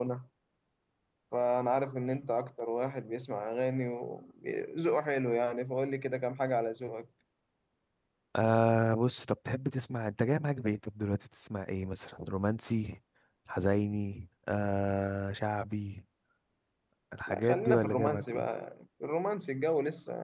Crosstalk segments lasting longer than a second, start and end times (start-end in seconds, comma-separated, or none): 17.3-18.5